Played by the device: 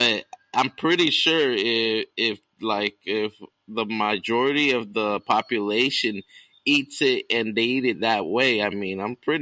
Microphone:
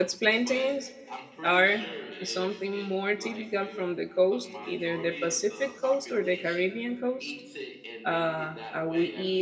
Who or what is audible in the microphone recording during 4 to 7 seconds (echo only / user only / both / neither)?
both